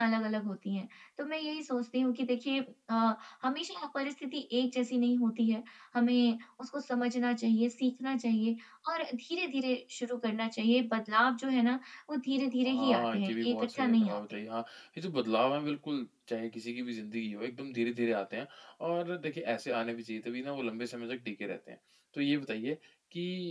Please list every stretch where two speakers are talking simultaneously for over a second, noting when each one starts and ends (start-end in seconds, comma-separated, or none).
12.7-14.4